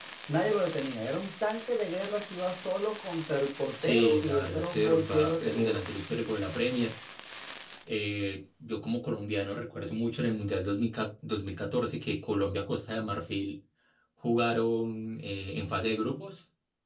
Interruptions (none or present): present